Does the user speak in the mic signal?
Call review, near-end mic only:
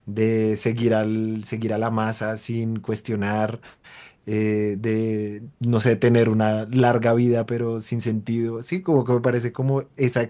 Yes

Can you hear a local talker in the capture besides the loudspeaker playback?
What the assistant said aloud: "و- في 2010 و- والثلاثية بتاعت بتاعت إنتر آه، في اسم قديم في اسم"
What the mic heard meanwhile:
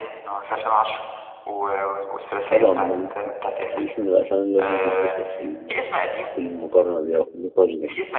Yes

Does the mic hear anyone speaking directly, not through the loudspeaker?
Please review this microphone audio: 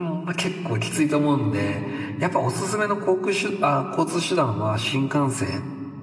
No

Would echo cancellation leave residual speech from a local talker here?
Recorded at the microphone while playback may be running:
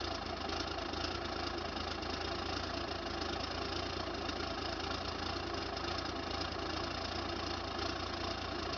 No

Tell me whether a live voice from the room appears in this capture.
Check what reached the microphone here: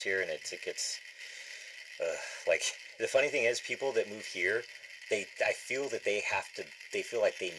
No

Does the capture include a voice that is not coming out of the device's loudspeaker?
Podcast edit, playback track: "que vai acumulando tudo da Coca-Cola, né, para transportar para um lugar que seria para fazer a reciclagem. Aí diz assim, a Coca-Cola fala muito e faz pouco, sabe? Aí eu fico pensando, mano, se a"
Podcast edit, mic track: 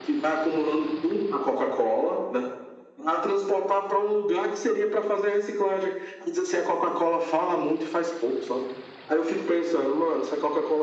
No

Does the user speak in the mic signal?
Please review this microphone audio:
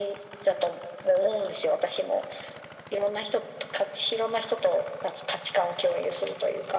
No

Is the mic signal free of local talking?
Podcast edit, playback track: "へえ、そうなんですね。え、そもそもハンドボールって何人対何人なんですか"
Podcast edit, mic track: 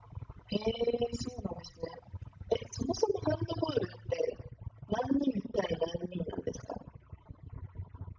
Yes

